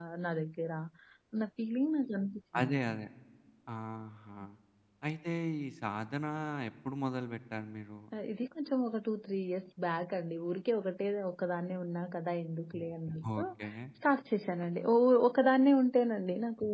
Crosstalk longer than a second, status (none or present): none